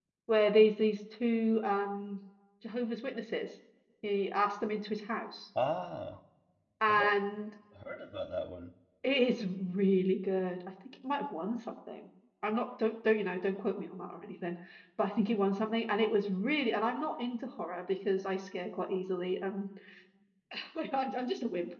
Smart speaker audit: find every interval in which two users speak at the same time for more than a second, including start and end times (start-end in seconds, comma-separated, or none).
none